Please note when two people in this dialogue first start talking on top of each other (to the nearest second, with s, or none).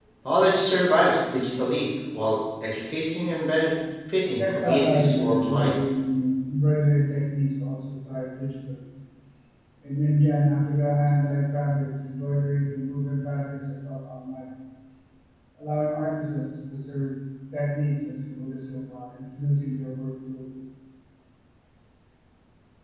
4 s